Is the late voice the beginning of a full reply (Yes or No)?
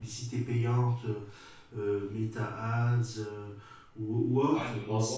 Yes